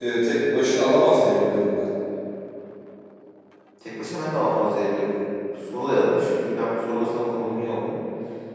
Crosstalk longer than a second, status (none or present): none